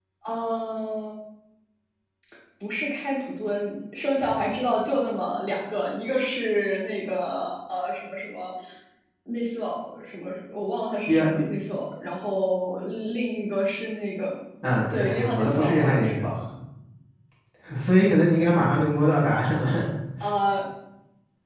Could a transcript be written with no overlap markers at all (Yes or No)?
No